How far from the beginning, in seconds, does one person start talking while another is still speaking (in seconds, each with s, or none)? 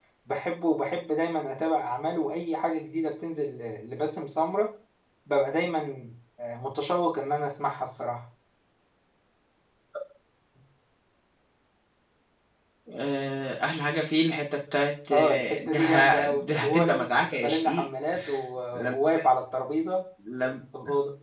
15.1 s